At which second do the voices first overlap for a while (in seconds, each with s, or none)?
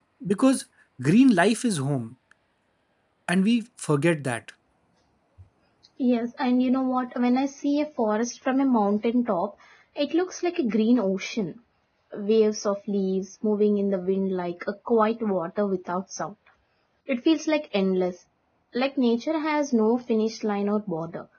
none